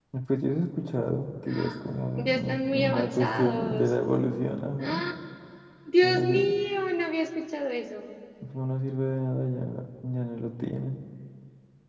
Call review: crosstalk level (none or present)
present